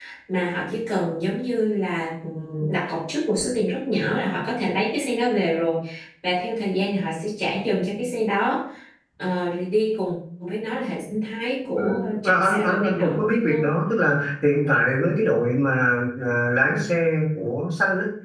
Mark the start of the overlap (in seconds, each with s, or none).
11.8 s